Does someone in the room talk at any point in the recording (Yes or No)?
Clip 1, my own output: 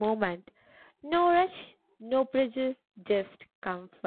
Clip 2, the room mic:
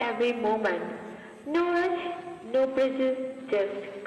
No